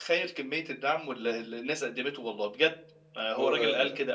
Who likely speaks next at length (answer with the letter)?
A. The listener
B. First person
B